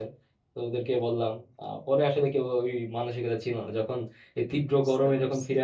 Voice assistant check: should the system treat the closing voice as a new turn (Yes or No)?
No